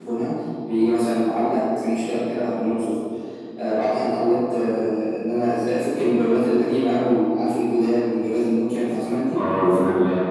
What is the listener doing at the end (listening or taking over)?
taking over